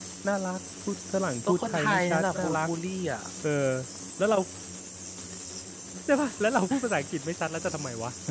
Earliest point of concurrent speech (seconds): 1 s

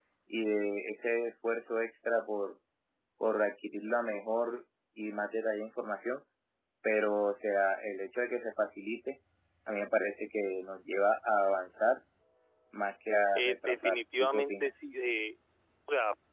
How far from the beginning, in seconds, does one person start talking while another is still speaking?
13 s

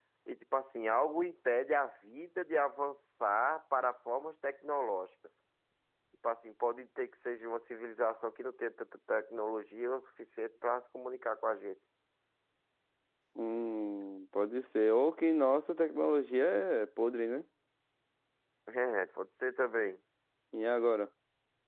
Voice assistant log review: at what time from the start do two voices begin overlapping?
none

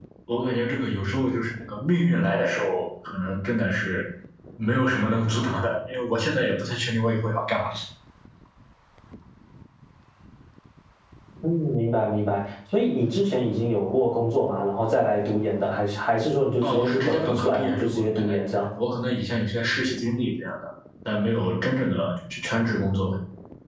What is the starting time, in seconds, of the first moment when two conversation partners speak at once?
17 s

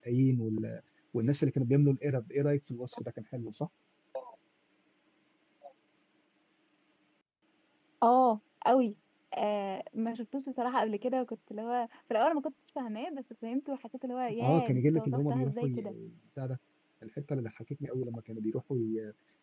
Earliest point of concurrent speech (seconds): 14 s

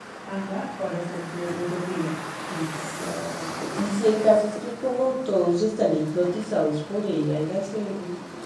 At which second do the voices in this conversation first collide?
none

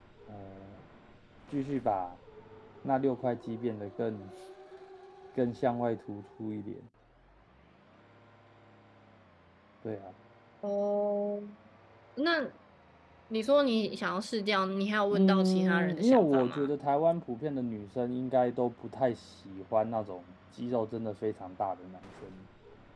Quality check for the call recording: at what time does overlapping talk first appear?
15 s

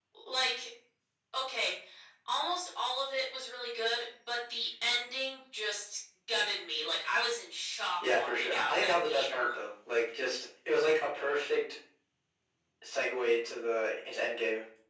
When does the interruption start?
8 s

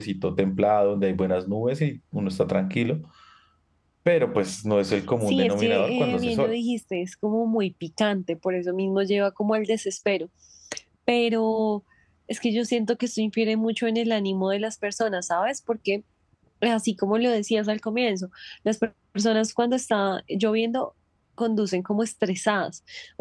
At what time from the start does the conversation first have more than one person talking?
5 s

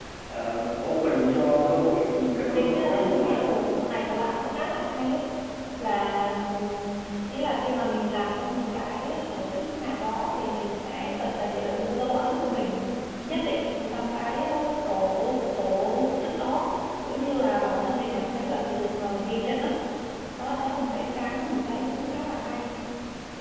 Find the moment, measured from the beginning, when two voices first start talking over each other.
2 s

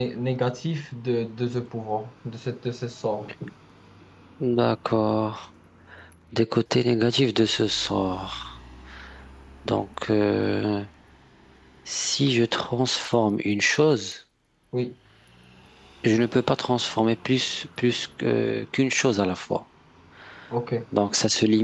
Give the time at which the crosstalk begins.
none

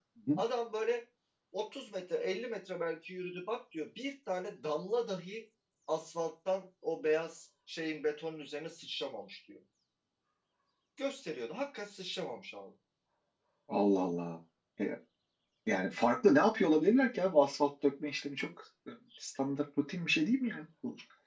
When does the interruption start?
none

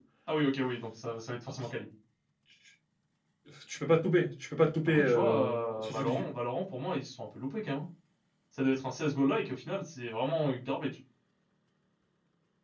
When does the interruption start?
5 s

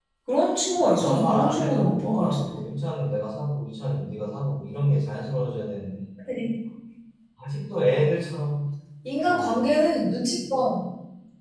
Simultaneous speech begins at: 1 s

